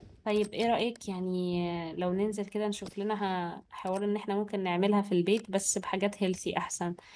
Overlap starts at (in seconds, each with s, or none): none